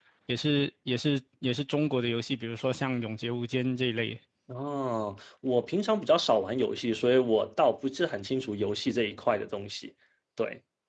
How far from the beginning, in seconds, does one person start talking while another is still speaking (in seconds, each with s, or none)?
none